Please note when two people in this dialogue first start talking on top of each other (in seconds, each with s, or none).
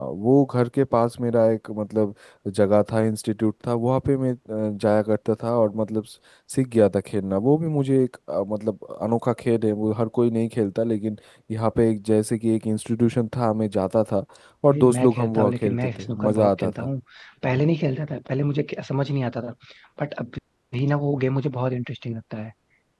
14.7 s